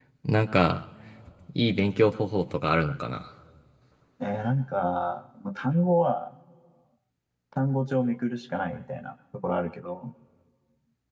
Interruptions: none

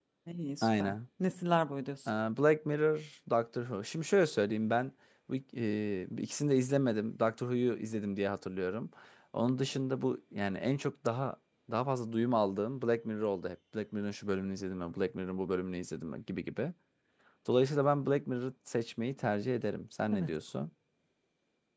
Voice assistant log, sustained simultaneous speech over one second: none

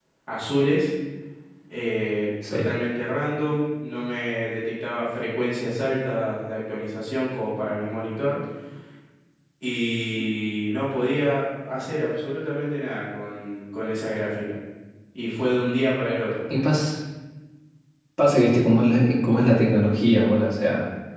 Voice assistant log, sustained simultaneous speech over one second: none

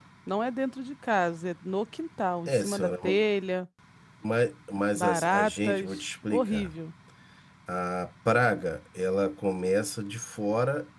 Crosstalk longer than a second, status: present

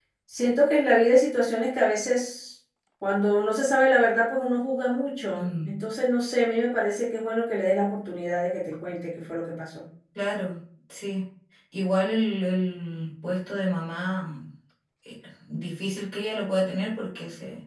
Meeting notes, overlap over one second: none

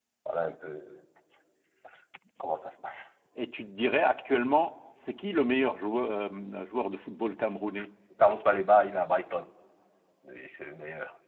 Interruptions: none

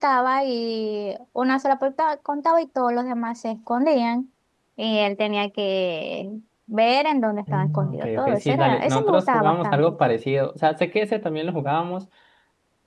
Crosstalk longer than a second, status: present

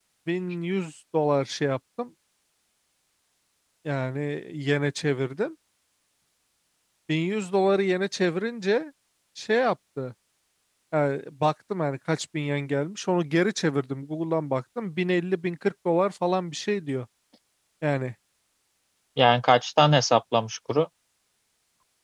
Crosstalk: none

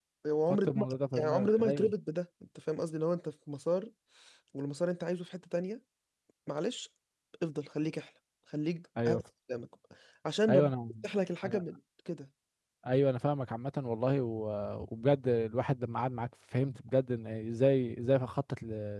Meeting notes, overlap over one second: present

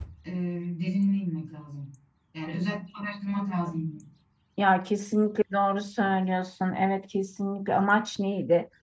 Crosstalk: none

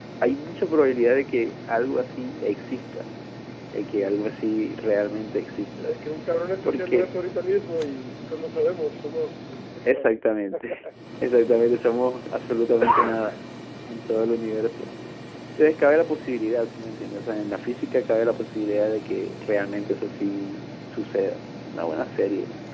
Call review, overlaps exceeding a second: none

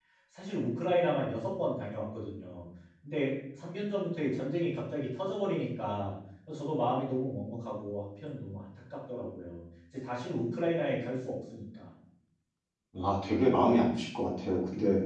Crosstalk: none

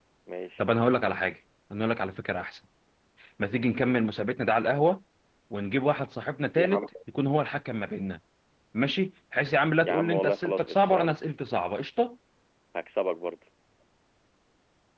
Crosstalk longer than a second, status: present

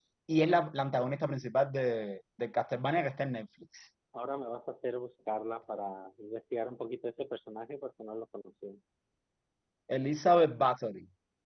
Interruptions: none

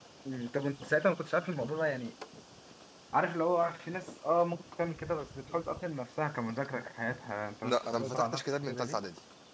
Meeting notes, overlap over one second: present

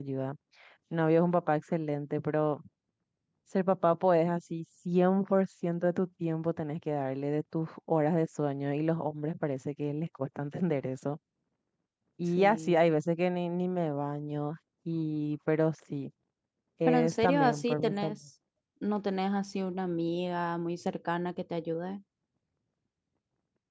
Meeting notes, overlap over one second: present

